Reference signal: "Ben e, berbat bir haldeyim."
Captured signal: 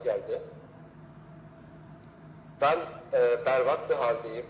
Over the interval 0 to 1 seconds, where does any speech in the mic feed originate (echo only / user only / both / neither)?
echo only